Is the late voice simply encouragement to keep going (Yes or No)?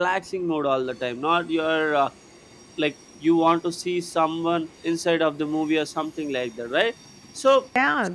No